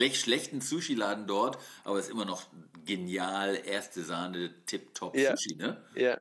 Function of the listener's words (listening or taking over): taking over